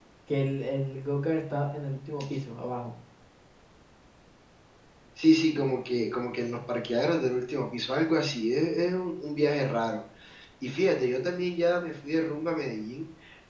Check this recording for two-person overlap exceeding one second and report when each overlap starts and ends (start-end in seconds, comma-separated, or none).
none